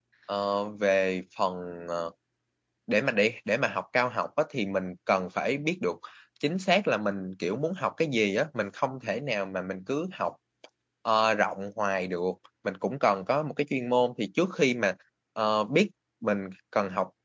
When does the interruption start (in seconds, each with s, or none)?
none